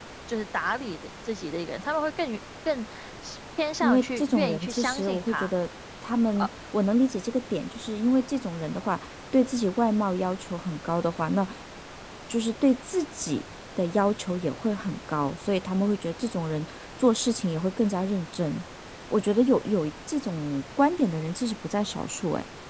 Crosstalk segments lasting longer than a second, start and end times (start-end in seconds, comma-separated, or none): 3.8-5.5